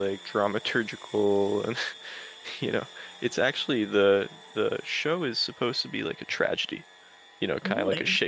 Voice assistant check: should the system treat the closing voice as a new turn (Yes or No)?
No